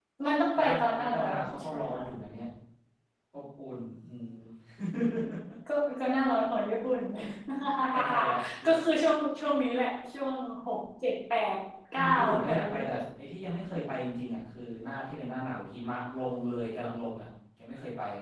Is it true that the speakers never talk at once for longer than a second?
No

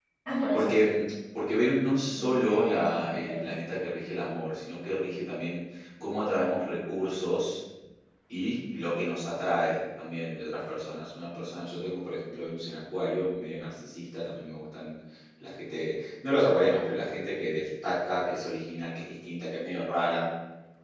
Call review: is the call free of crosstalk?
No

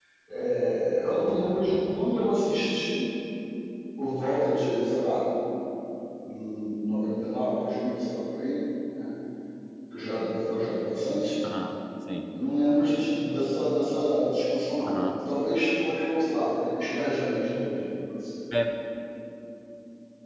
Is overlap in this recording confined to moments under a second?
Yes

